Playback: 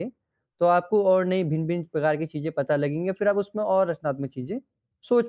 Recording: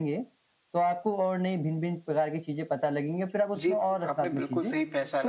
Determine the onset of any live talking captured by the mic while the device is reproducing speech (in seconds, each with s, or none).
3.6 s